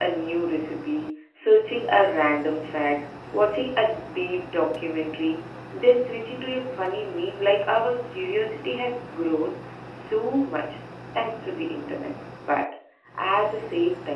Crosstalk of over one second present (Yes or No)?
No